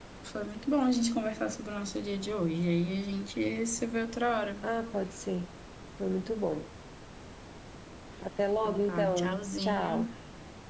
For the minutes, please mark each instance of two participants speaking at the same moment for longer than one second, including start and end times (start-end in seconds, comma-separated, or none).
8.6-10.1